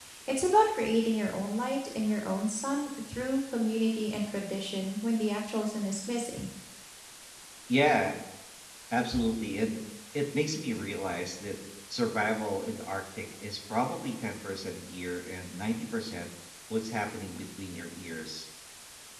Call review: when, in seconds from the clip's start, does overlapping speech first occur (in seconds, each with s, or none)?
none